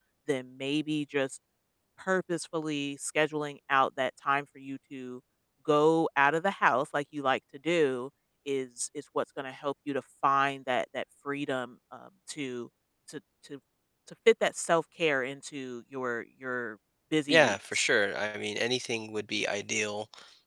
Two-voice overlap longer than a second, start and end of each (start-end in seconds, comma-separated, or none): none